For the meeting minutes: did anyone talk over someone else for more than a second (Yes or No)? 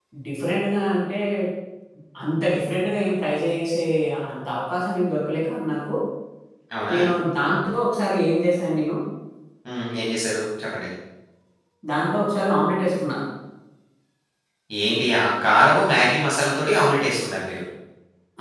No